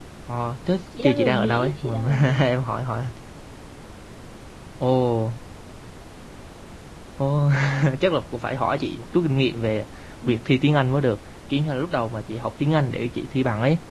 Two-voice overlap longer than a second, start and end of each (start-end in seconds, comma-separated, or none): 1.0-2.4